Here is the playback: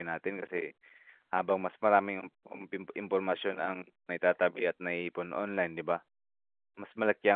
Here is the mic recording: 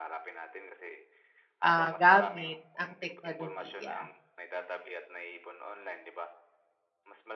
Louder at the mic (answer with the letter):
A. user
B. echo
A